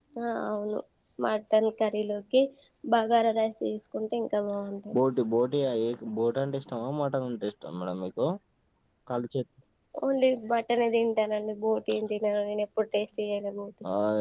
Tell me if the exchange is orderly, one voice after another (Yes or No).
Yes